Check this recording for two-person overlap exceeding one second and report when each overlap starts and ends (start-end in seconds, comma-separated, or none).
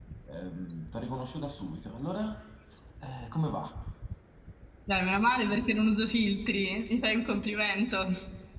none